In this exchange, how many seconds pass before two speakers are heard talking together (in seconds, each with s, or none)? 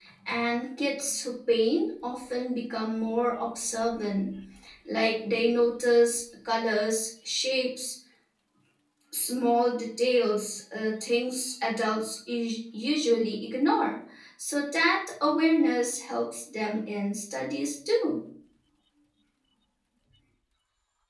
none